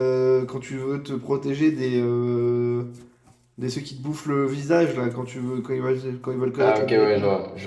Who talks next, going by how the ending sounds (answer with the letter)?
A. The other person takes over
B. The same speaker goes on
A